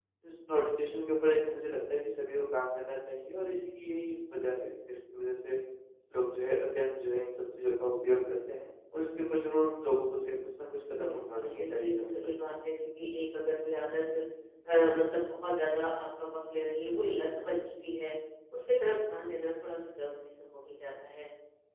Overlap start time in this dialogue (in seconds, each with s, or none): 10.9 s